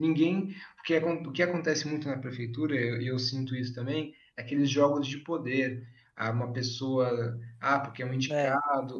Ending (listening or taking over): listening